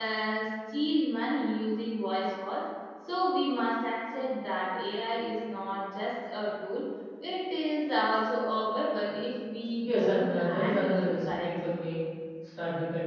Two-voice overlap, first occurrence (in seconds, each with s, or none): 9.8 s